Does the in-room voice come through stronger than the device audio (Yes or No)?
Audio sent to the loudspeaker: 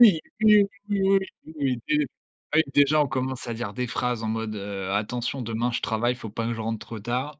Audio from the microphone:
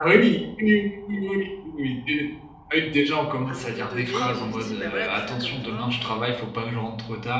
No